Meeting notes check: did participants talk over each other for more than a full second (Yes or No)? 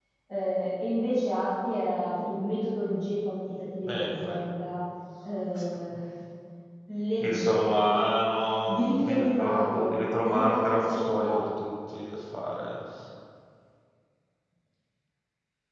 Yes